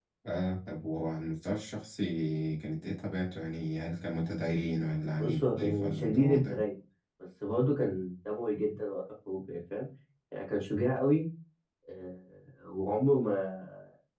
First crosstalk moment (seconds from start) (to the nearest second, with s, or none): 5 s